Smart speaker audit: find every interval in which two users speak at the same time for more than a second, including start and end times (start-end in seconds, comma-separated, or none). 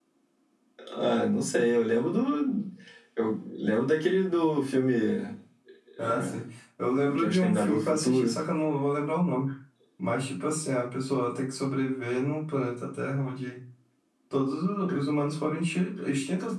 7.0-8.4